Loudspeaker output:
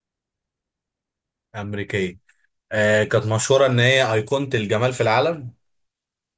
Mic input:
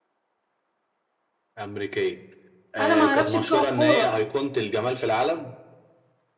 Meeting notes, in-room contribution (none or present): present